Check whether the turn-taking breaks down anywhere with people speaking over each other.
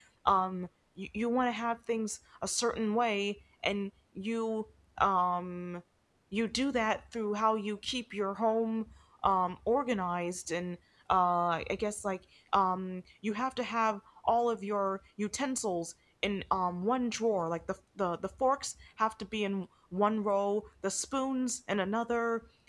No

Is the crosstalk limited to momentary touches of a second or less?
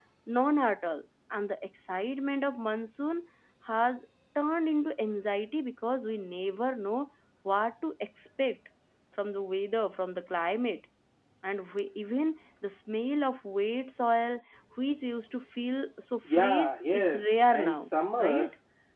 No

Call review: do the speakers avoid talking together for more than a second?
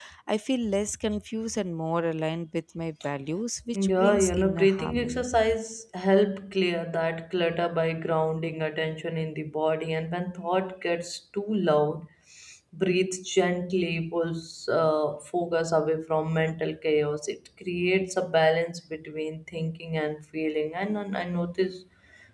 No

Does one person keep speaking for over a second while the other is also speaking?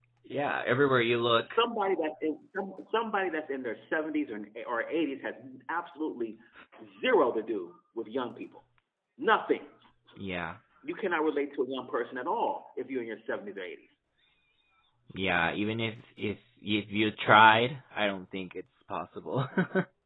No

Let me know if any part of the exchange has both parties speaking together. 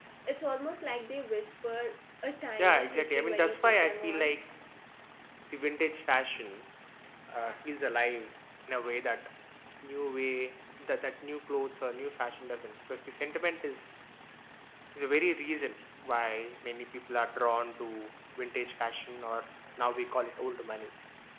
Yes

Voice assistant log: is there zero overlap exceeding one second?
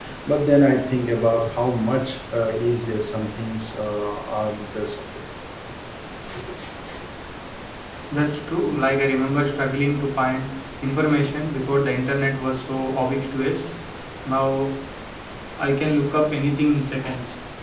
Yes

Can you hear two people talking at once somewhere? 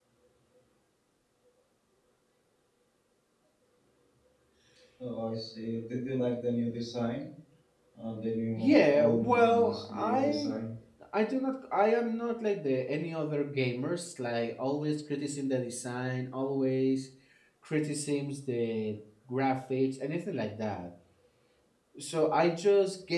Yes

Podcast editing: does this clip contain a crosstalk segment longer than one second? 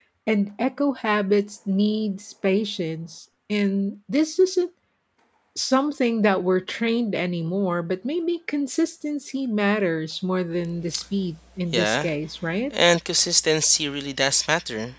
No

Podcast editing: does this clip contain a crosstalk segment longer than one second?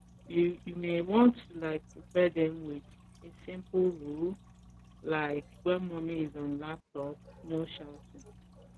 No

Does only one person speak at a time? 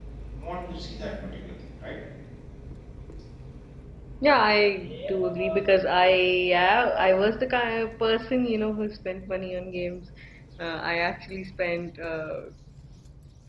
Yes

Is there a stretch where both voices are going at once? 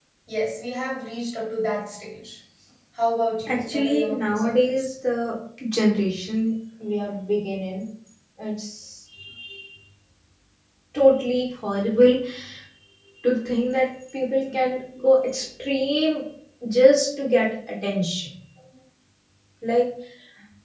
Yes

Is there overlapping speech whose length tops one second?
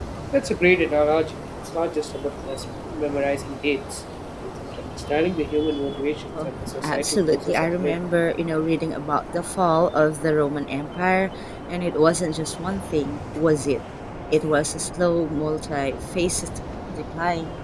Yes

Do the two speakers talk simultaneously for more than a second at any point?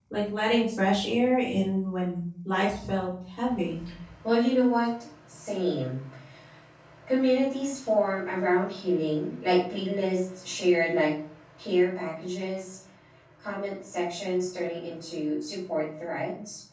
No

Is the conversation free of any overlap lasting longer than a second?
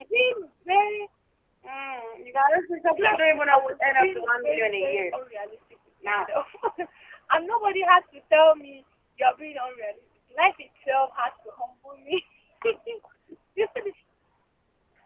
No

